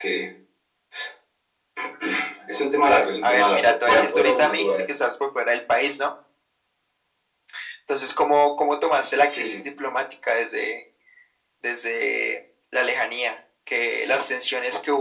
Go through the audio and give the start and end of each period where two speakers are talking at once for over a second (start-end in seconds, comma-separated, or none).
3.2-4.8